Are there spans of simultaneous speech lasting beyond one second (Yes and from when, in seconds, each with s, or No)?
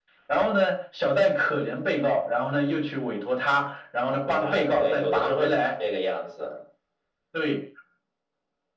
Yes, from 4.1 s